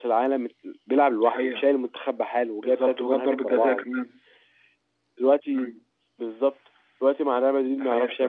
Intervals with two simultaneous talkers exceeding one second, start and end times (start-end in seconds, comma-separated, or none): 2.6-3.9